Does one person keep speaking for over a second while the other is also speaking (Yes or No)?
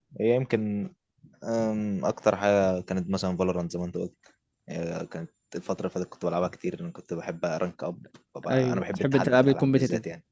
Yes